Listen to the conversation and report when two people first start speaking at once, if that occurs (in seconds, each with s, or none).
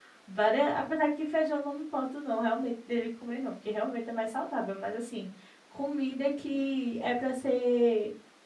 none